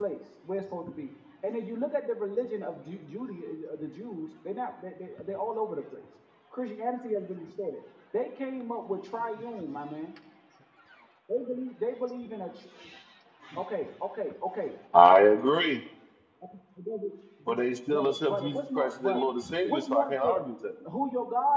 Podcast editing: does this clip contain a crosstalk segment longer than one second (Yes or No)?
Yes